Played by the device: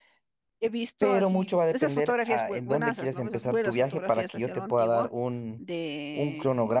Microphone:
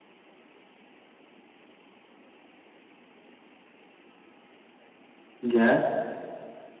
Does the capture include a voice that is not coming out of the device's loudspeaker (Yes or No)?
Yes